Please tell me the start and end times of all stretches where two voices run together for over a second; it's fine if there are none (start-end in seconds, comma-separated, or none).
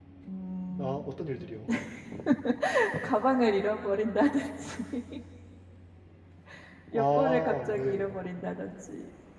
7.0-8.2